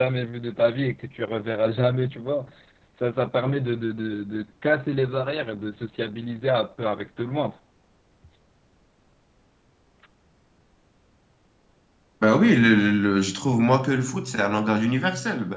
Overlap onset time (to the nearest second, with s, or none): none